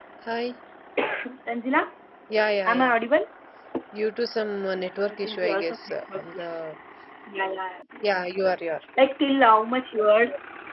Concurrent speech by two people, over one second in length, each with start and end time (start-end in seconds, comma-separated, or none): 4.7-6.5